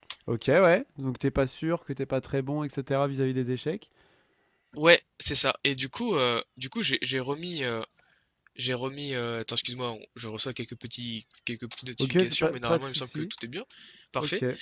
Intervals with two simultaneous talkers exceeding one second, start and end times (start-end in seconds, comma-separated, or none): 12.0-13.3